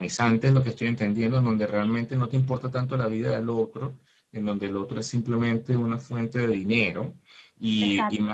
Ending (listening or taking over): listening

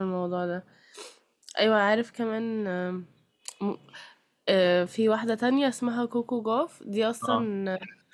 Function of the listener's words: listening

